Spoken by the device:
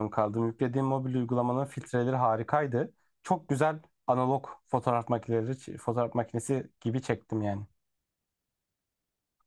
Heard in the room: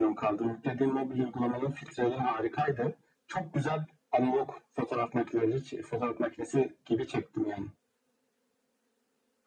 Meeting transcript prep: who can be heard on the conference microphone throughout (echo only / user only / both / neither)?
echo only